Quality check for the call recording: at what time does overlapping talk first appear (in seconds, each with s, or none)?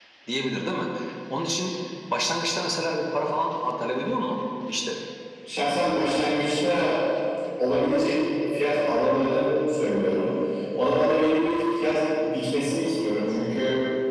none